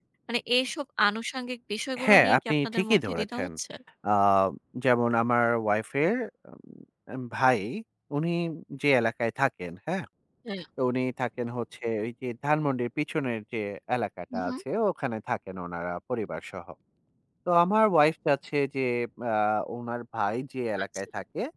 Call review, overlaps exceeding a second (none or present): present